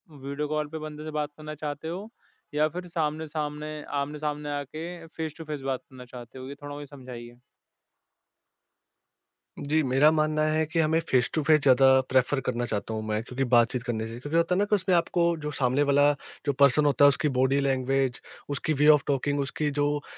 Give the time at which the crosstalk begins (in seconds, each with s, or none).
none